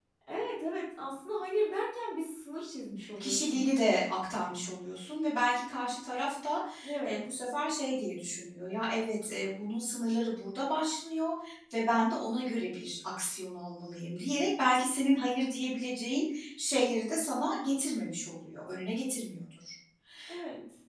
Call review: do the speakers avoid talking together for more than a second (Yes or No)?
Yes